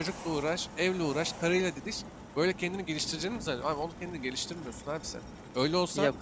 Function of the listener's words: listening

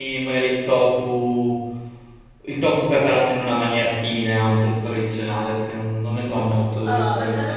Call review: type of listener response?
taking over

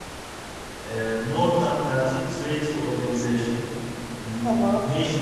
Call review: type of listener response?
listening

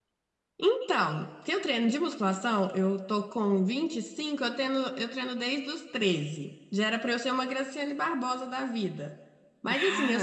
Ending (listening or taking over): listening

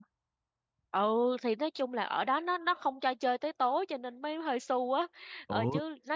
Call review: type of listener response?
listening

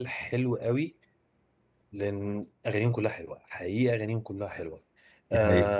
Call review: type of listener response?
listening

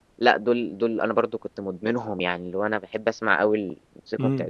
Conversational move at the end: listening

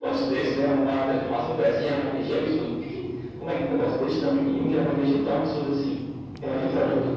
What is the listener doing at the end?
taking over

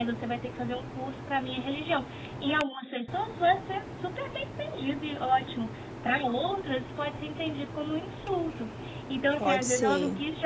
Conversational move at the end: listening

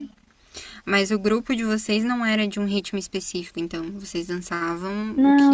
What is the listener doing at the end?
taking over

